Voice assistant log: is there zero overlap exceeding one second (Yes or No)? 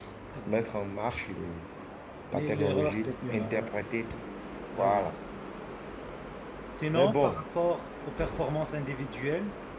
No